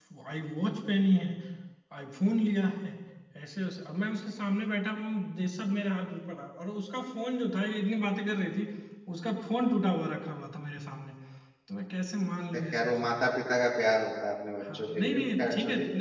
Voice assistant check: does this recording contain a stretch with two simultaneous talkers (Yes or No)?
Yes